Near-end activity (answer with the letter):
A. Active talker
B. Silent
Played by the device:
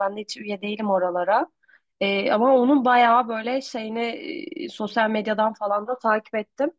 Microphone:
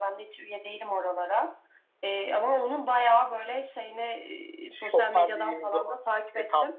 A